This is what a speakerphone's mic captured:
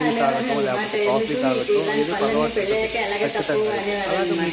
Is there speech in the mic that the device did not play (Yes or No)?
Yes